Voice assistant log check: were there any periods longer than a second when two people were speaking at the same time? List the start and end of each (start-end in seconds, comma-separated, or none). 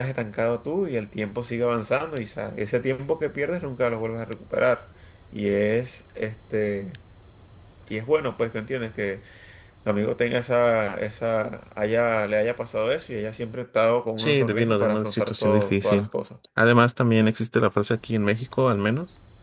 14.2-16.1